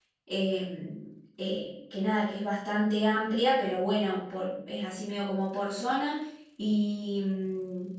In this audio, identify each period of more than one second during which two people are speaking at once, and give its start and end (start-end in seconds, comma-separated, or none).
none